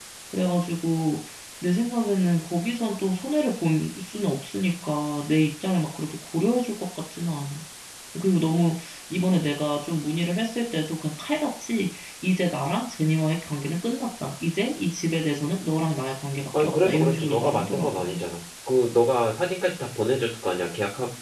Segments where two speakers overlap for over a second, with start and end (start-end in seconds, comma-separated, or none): 16.6-18.2